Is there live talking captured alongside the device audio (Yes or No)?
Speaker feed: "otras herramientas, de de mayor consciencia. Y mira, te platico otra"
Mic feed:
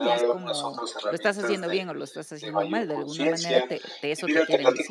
Yes